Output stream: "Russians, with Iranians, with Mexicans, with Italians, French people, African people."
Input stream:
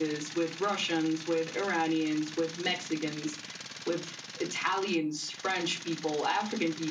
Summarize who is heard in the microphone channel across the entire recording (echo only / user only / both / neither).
echo only